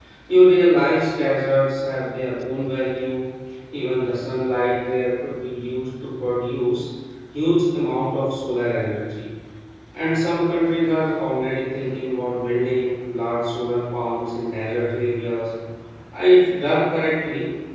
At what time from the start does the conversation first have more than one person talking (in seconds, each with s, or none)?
none